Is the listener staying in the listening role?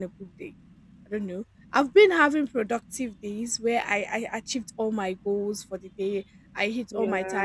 Yes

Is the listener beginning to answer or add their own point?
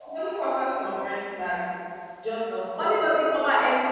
Yes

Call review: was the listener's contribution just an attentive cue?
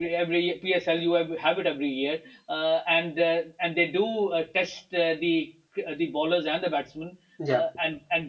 Yes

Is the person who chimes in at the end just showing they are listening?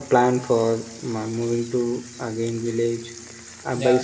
Yes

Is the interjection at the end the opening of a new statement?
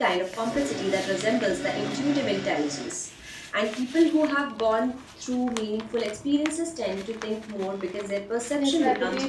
Yes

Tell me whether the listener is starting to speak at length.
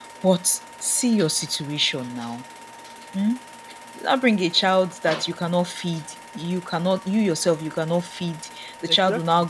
No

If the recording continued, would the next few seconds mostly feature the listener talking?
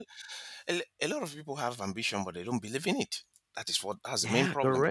Yes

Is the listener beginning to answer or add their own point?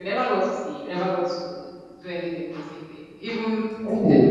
No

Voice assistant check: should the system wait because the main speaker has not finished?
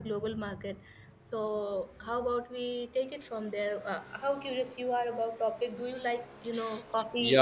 No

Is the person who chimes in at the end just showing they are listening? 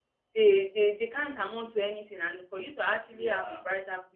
Yes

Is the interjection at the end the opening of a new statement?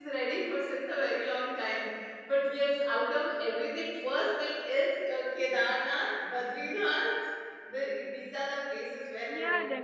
Yes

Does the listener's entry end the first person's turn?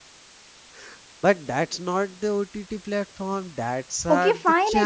Yes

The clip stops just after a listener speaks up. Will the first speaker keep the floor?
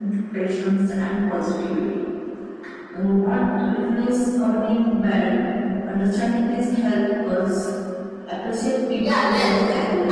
No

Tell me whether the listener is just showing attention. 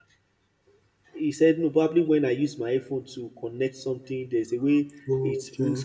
Yes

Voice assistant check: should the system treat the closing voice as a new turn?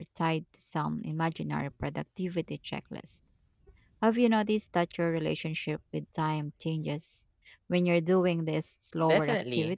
Yes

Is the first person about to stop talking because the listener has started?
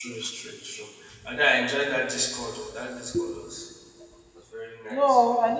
Yes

